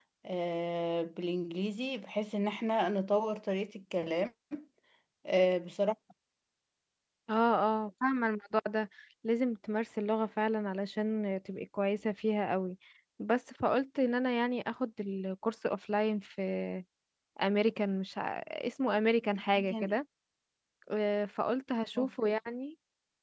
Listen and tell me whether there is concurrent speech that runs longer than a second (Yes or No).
No